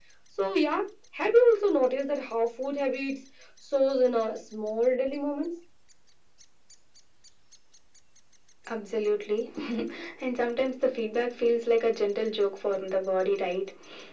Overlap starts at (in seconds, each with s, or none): none